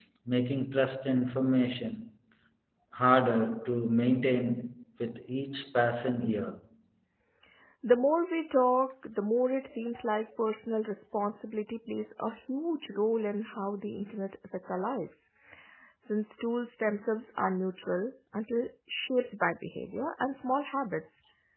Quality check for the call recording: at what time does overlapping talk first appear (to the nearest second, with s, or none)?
none